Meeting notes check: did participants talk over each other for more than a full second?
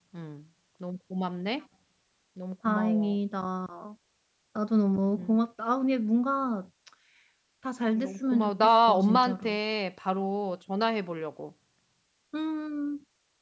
Yes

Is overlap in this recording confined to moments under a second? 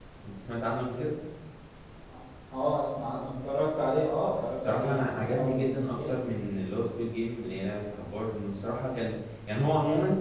No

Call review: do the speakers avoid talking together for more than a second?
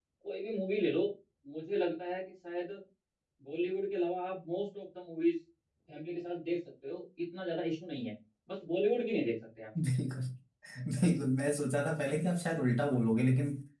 Yes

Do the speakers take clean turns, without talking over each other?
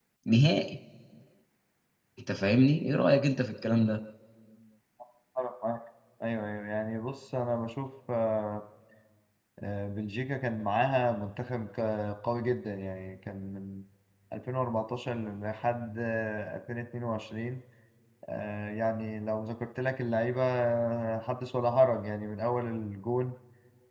Yes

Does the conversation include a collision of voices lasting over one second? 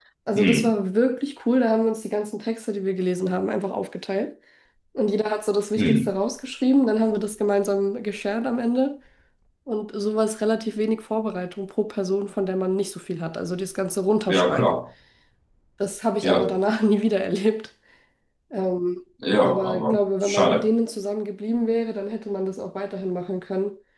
Yes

